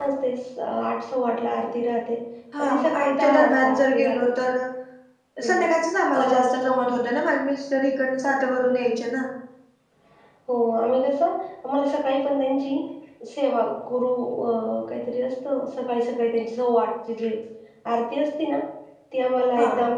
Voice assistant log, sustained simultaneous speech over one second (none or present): present